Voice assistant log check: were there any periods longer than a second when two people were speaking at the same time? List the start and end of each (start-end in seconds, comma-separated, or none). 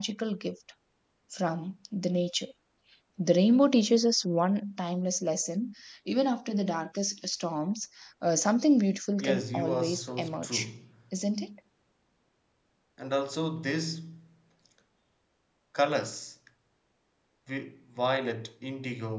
9.2-10.6